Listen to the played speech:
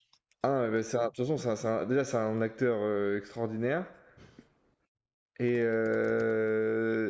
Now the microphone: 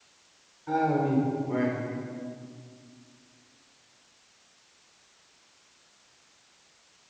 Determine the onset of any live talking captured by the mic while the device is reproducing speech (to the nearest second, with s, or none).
1 s